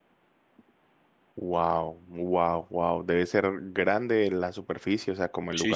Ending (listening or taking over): taking over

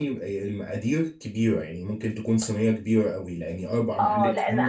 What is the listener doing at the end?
taking over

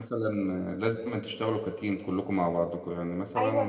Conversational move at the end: taking over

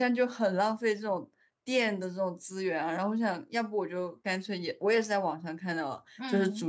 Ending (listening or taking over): listening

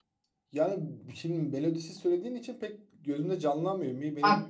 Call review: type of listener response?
taking over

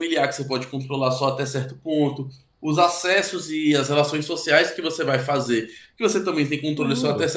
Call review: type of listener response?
listening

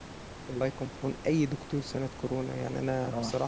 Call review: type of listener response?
listening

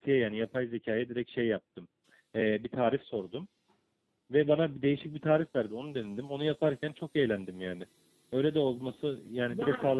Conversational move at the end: taking over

